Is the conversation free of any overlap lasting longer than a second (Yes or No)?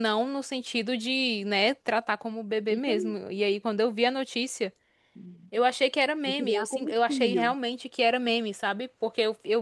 No